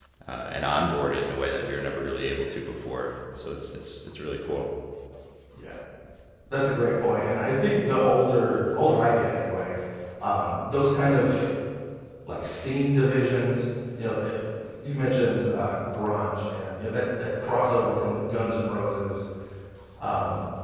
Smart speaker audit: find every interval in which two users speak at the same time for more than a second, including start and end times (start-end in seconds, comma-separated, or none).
none